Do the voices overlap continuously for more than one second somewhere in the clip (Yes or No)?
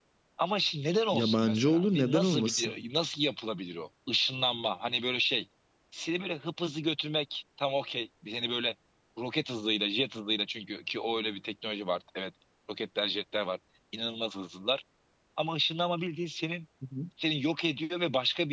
Yes